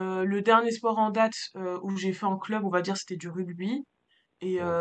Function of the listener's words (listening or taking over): listening